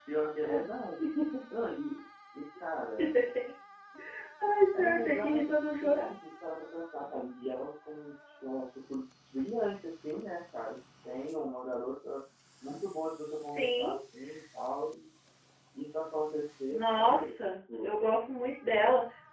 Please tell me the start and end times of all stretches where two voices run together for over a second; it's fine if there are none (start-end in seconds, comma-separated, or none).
4.8-6.1, 16.7-17.9